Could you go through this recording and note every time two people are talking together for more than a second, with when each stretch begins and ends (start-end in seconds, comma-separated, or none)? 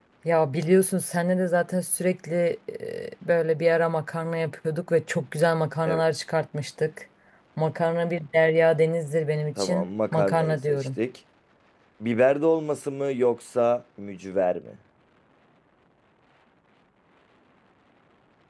9.6-10.9